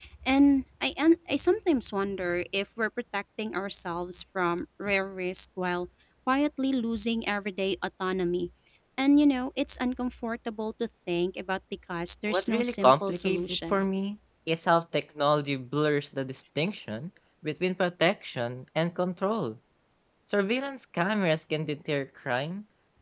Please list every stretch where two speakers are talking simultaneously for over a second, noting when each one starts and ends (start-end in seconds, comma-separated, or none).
12.3-13.8